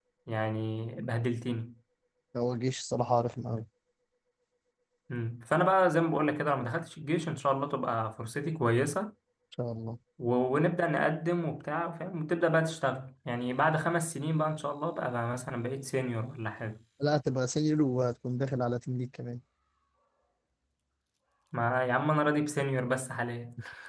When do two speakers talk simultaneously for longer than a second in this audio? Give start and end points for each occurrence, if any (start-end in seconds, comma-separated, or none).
none